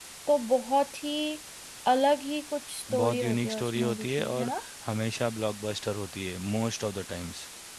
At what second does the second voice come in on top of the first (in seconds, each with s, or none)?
2.9 s